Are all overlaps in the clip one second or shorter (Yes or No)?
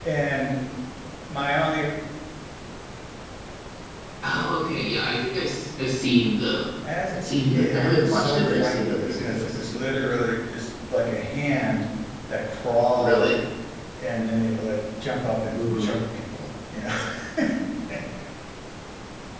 No